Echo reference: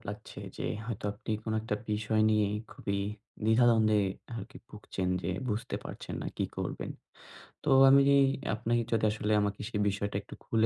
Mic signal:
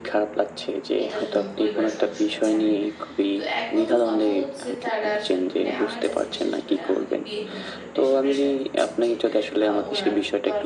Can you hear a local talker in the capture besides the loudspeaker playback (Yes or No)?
Yes